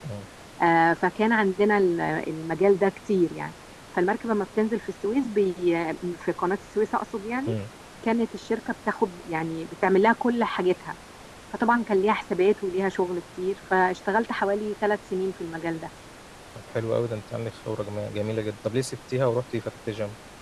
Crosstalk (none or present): none